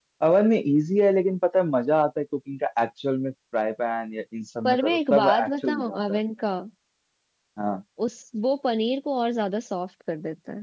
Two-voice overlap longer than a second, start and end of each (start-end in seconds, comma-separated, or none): 4.6-6.2